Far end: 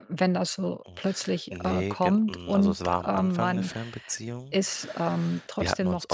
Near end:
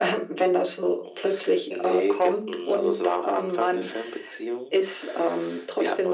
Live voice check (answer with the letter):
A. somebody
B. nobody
B